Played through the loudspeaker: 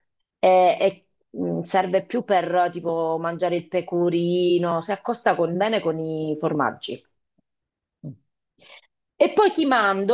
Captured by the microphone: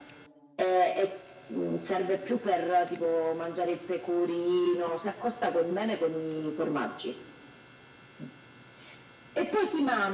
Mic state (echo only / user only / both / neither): echo only